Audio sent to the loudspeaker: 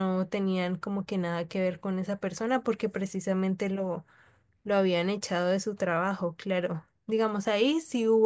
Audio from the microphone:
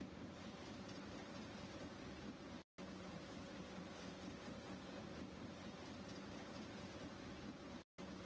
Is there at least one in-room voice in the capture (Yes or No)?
No